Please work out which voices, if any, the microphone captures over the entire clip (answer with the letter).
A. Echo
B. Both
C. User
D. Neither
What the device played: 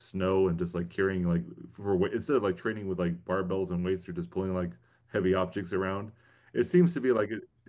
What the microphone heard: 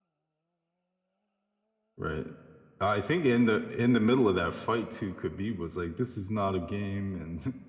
C